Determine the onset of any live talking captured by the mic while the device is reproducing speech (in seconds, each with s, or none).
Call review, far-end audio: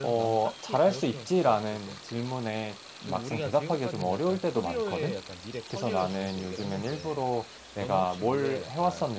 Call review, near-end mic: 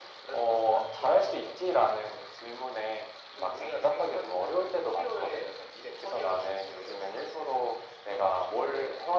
none